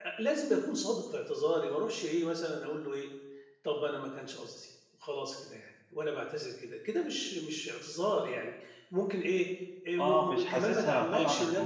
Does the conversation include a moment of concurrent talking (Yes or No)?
Yes